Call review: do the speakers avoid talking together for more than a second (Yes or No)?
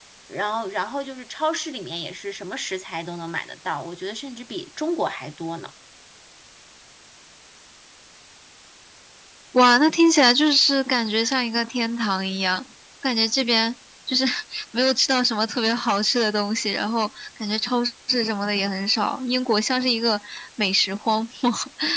Yes